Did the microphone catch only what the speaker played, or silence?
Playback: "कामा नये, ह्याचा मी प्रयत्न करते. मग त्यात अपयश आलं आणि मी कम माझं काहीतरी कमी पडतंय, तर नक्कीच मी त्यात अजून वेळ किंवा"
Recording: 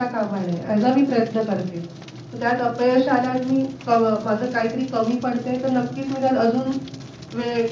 Yes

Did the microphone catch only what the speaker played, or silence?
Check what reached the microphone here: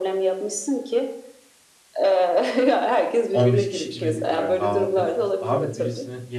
No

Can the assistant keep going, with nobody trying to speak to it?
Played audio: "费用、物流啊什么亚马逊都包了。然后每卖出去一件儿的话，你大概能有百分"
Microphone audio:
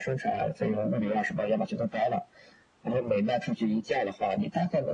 Yes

